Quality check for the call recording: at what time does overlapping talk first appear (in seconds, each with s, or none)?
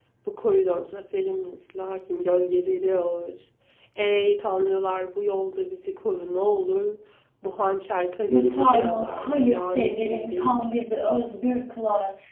8.3 s